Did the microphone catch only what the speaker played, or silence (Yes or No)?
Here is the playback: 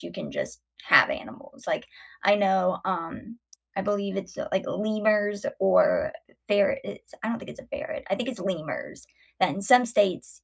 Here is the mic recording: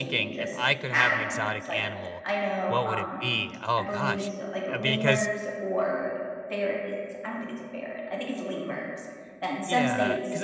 No